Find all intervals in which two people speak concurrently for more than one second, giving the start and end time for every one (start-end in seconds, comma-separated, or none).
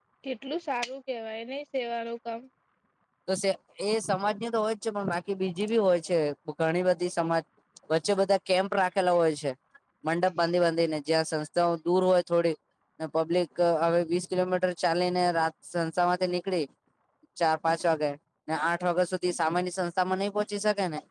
none